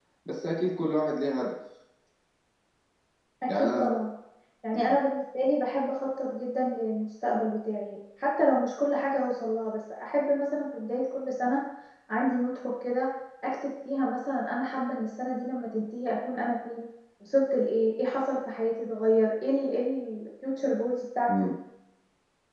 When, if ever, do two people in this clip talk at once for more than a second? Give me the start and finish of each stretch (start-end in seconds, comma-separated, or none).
none